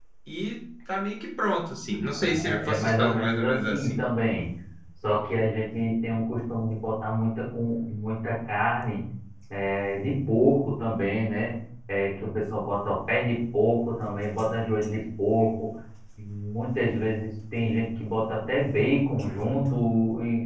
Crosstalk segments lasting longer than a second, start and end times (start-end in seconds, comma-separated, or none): 2.1-4.0